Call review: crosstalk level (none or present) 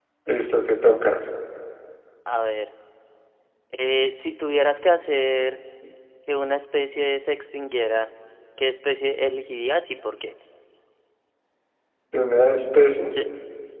none